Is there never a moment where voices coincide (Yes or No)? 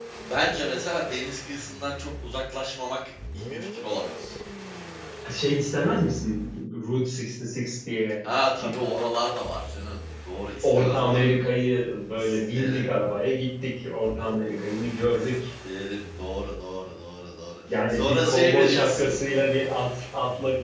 No